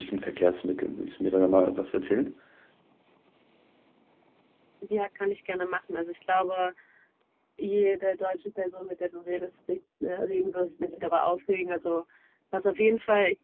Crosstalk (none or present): none